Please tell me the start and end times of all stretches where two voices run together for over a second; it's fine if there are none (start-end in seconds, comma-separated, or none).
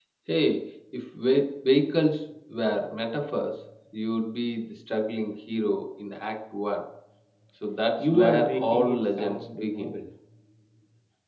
8.0-9.9